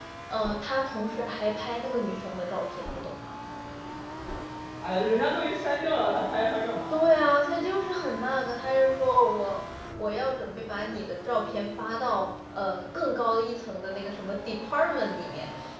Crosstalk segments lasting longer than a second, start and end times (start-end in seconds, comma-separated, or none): none